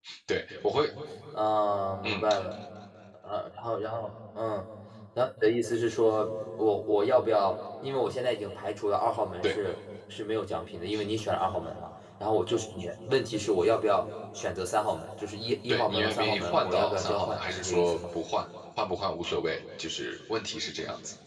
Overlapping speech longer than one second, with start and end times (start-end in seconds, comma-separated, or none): 15.7-18.0